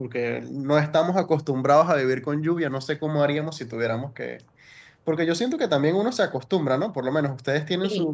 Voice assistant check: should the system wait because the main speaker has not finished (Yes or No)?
Yes